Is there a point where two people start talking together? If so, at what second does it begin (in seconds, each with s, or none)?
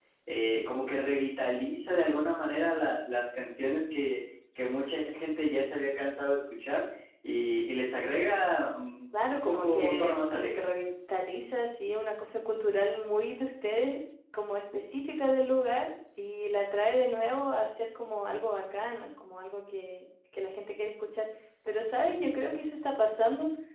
9.1 s